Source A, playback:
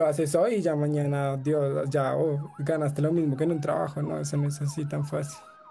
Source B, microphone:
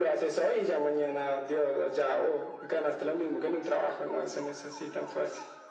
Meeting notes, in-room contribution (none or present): none